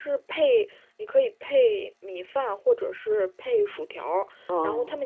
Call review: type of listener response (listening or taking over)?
listening